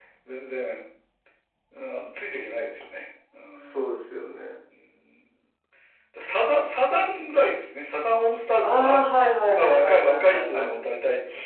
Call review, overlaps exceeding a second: present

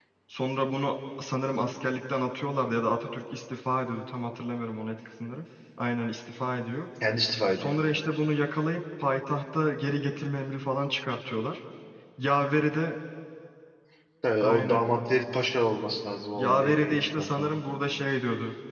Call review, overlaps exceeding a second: present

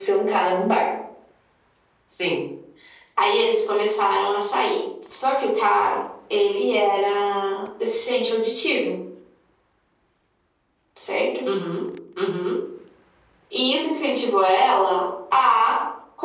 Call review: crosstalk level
none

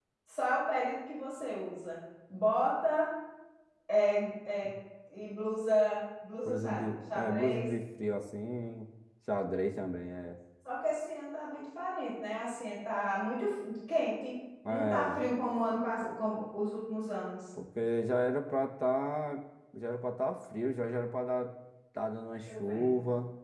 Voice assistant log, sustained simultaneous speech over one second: present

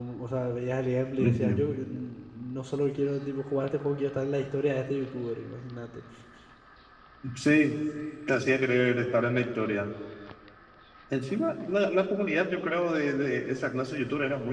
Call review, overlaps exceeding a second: none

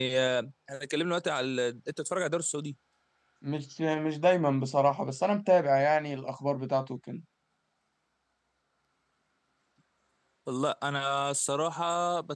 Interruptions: none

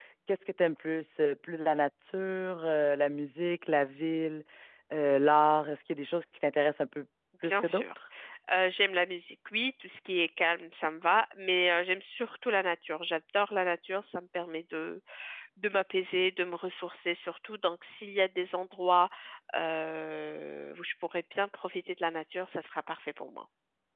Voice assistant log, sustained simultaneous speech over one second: none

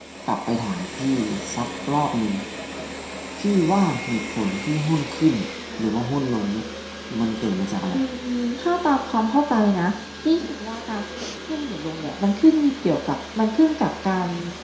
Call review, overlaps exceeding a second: none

